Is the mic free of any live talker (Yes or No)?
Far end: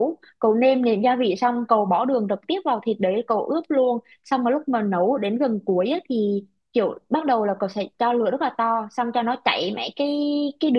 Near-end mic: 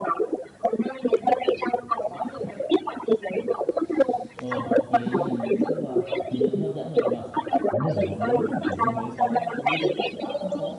No